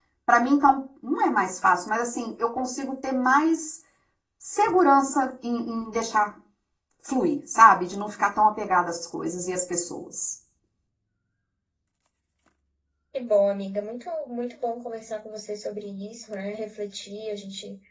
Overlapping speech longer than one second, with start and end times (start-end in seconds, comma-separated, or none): none